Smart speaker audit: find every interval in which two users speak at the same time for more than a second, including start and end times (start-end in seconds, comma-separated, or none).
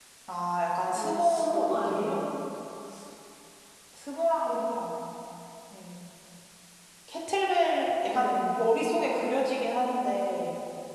0.9-2.2